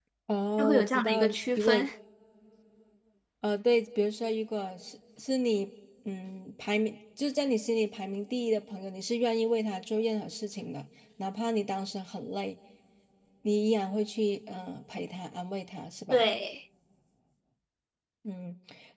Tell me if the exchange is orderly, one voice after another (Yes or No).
No